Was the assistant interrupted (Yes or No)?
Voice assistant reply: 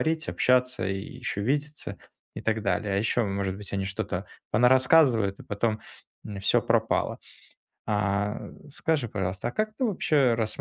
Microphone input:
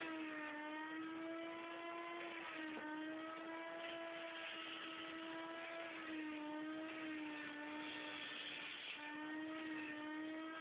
No